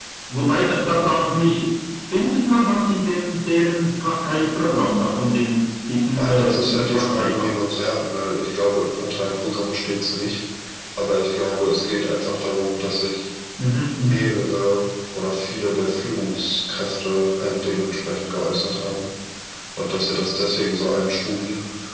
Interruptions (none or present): present